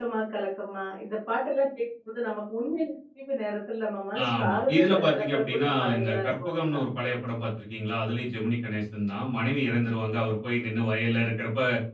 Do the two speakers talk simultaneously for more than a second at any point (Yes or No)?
Yes